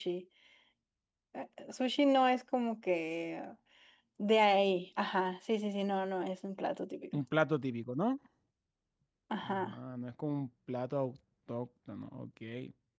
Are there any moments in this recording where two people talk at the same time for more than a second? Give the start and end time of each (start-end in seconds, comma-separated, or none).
none